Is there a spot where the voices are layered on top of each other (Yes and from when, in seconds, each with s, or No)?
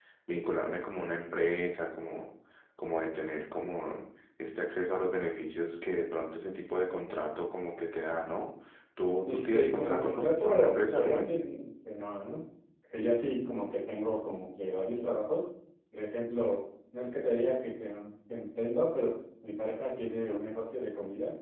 Yes, from 9.2 s